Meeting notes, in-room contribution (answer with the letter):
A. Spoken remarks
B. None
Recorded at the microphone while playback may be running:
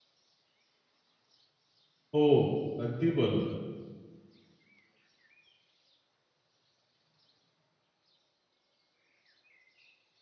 A